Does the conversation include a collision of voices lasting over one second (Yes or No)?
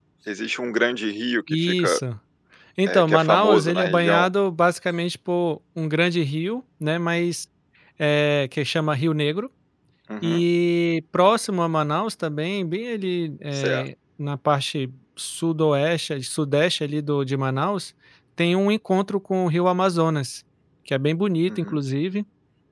Yes